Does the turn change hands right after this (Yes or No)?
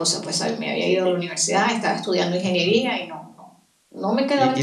Yes